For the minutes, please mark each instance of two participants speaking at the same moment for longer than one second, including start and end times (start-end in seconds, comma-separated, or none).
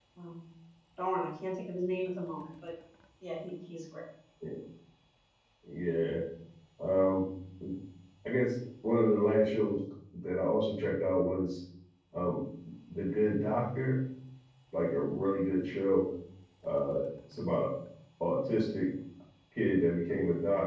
none